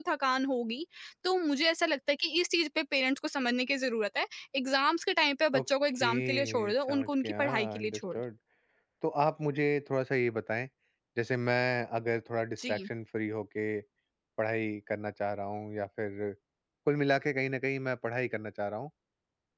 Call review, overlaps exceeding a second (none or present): present